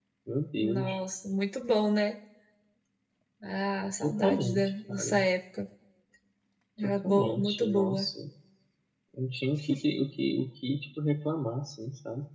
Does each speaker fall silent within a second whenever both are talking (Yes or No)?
No